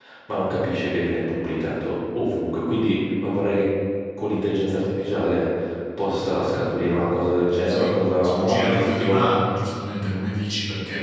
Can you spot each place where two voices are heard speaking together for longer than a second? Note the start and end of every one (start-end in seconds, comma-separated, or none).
7.6-9.3